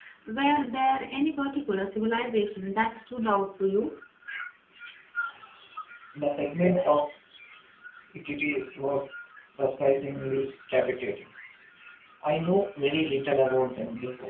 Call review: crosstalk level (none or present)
none